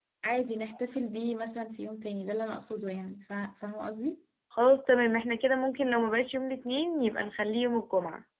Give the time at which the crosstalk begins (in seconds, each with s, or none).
none